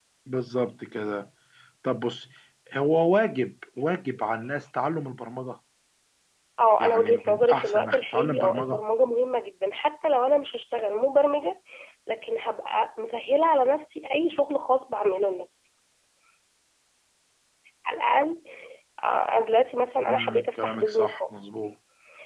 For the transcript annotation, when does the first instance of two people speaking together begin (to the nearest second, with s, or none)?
7 s